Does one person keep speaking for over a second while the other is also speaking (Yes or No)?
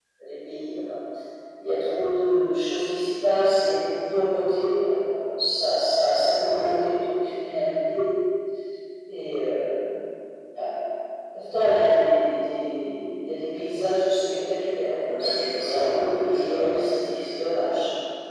Yes